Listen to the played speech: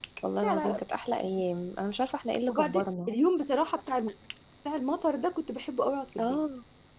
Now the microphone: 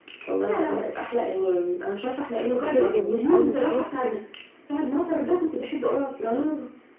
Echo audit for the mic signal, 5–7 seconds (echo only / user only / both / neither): echo only